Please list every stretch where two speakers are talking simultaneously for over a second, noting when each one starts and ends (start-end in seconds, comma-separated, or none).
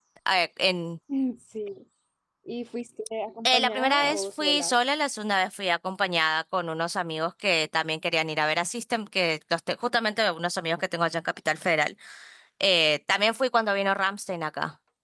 3.5-4.8